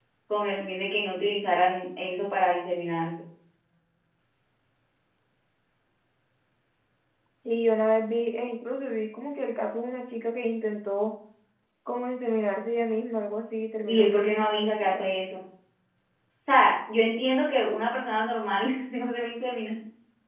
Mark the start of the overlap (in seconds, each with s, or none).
13.8 s